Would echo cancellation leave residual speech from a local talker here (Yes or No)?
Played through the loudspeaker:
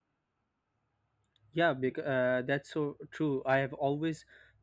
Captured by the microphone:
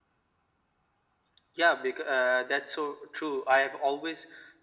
No